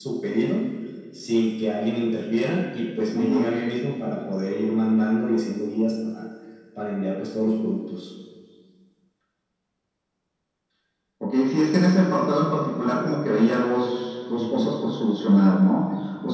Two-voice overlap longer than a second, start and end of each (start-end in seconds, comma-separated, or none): none